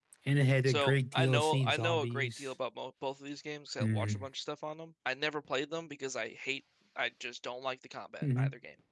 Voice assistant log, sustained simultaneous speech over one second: present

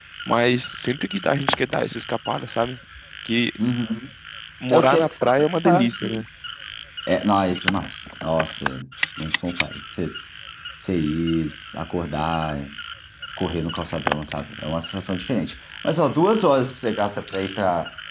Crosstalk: present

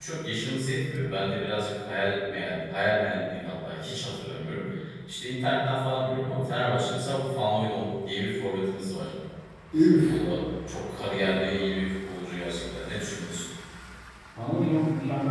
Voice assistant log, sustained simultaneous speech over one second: none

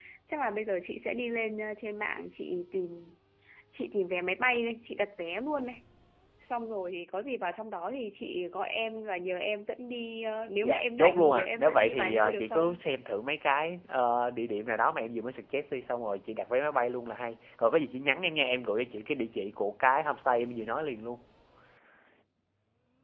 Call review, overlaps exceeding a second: present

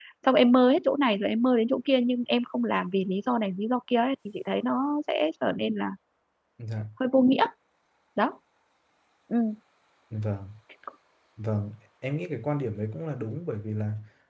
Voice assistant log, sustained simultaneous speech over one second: none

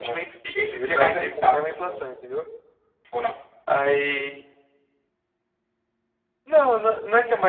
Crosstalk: present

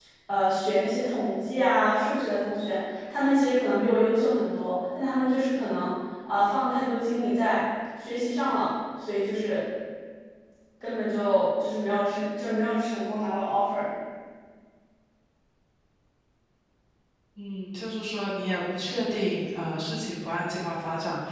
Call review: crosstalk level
none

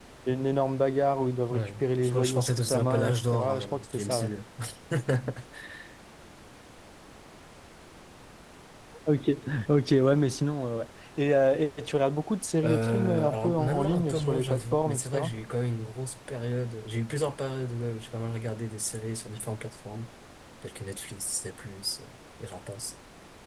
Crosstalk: present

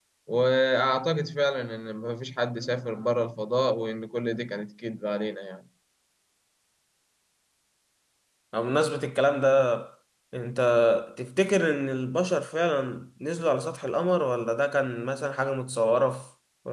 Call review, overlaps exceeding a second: none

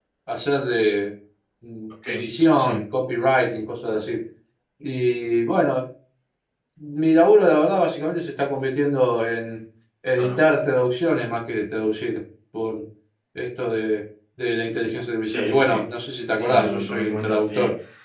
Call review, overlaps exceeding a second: present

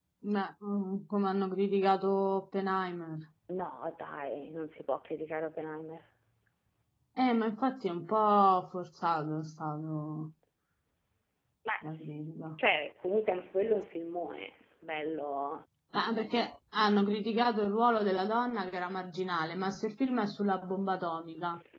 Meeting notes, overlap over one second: none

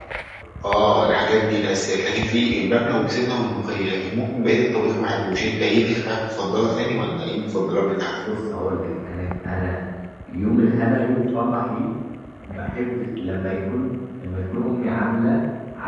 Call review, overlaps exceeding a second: none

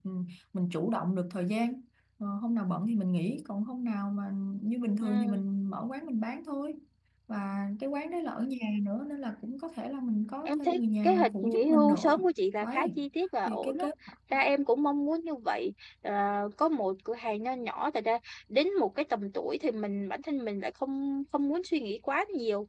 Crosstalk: present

